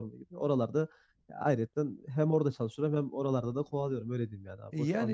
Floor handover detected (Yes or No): Yes